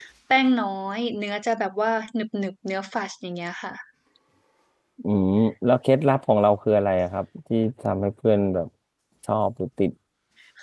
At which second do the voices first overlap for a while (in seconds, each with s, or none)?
none